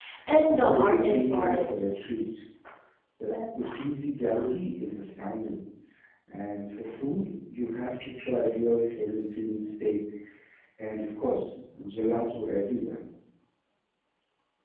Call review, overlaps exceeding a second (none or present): present